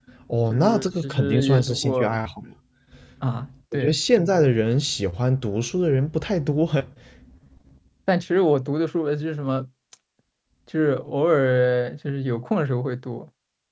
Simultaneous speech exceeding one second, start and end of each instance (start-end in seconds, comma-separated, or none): 0.5-2.1